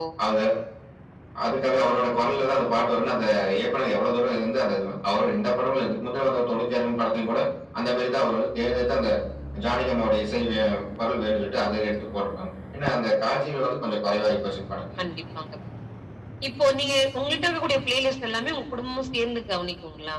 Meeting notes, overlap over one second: none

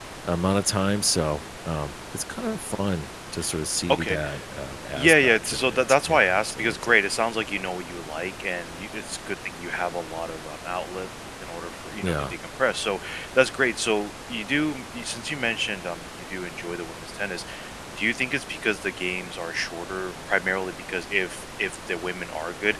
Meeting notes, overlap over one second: present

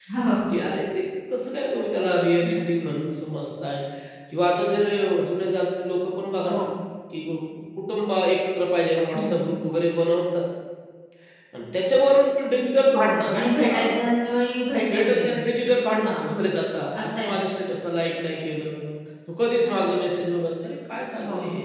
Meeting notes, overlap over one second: none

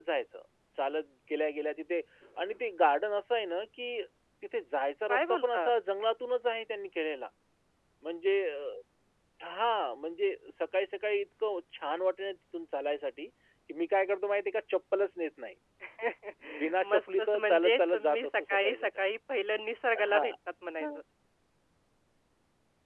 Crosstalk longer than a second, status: present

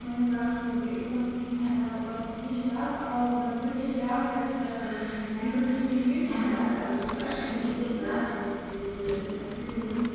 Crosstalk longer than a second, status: present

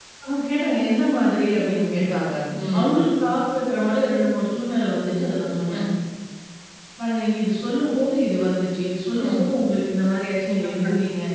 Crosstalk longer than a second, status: none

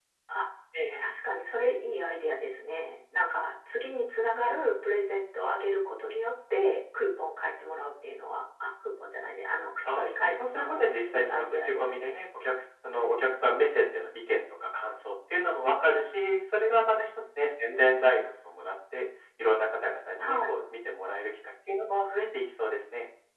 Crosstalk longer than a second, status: present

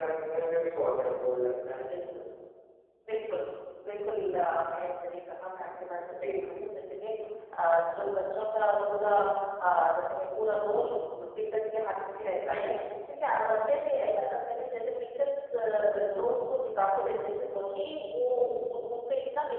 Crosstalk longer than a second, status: none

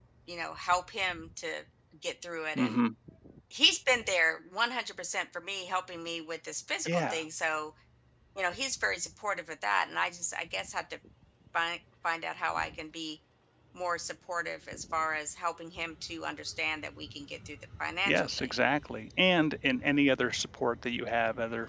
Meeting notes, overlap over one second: none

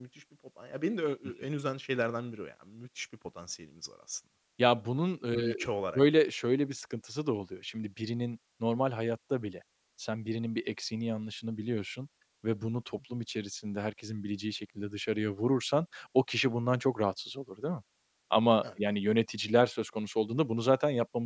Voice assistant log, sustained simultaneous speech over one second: none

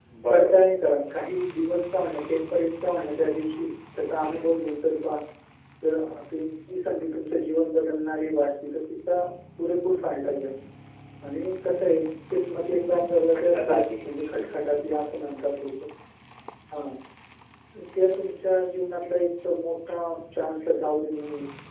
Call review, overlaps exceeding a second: present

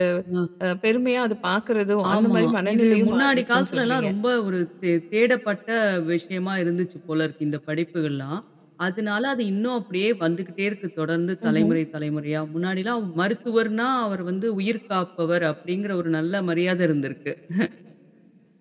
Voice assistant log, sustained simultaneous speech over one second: present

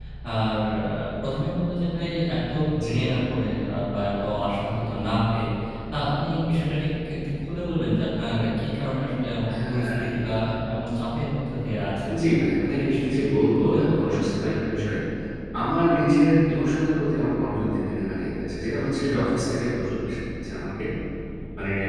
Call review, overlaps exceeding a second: present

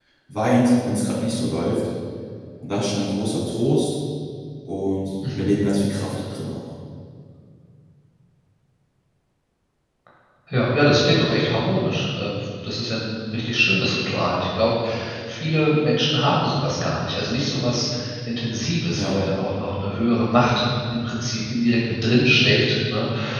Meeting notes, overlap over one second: none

